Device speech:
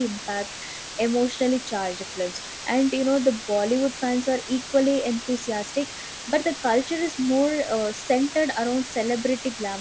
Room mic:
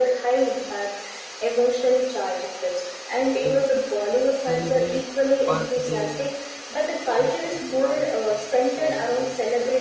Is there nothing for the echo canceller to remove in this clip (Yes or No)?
No